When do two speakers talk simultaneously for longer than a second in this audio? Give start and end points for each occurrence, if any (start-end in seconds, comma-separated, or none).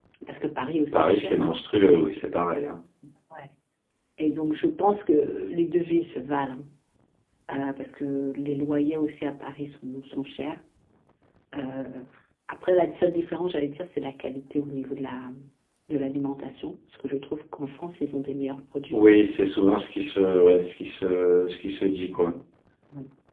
0.9-2.3